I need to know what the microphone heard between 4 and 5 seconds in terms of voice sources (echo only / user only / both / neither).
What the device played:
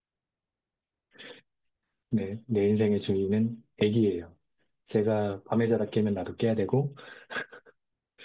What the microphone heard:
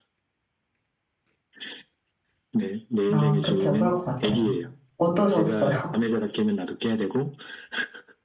both